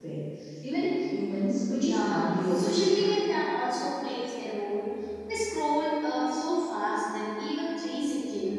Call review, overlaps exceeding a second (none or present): present